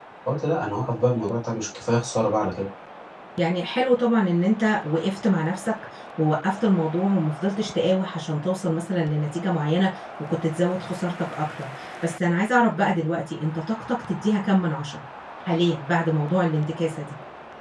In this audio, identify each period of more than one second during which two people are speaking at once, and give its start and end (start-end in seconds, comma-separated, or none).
none